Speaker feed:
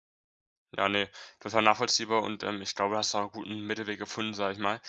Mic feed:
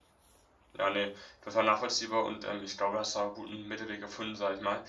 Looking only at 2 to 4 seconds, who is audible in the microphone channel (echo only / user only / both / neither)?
echo only